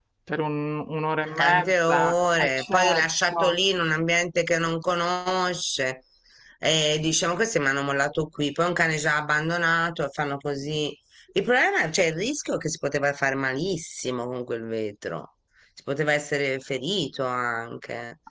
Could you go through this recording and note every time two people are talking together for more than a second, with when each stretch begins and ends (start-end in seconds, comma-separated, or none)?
1.4-3.5